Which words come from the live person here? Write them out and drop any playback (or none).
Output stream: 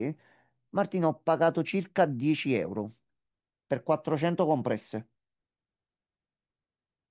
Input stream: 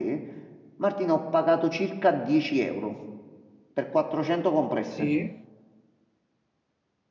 Sì.